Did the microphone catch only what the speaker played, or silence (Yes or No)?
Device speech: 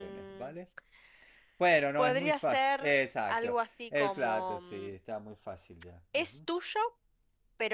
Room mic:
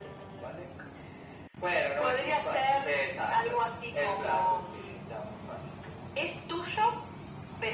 Yes